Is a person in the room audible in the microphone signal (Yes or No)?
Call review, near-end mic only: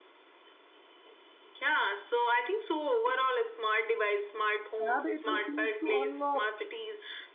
Yes